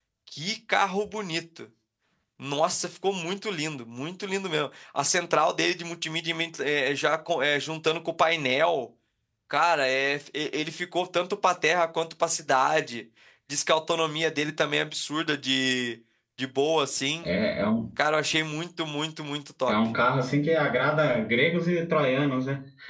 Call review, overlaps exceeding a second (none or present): none